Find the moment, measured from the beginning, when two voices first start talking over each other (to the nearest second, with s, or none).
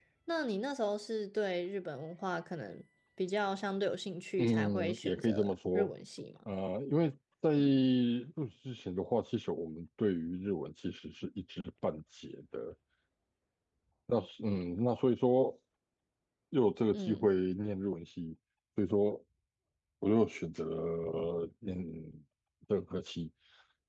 4 s